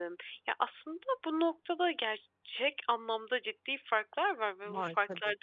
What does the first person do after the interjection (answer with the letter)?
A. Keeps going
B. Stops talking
A